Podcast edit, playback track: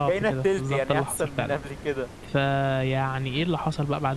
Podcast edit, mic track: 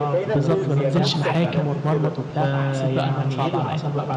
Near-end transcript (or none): بالضبط، ما بانزلش محاكم واتمرمط وبتاع، فحسيت بقى إن أنا صعب عليَّ،